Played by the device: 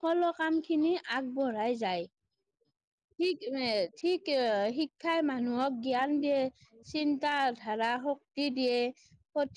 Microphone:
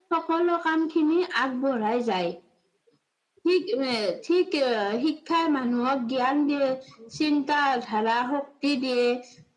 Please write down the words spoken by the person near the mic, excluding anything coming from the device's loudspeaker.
none

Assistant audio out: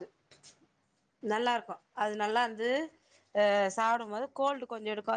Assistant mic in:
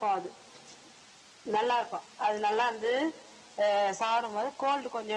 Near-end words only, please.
none

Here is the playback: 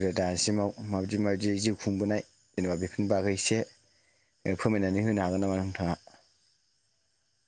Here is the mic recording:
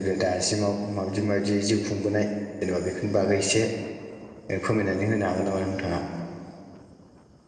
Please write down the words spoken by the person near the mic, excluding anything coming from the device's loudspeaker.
none

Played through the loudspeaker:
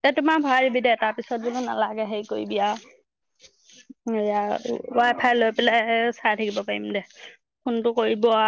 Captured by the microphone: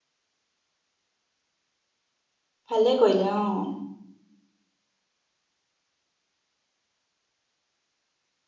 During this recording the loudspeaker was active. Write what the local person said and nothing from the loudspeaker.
ভালে কৰিলে অ'।

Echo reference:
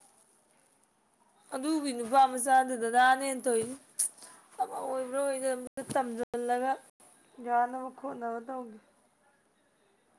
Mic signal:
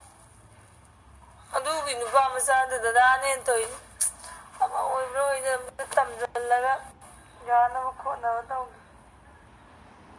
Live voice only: none

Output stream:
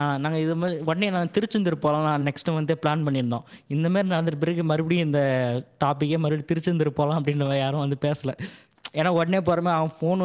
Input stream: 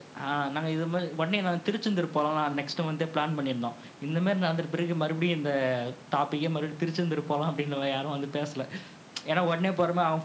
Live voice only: none

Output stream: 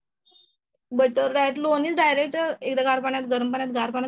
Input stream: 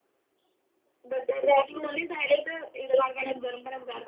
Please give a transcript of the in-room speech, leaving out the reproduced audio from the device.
none

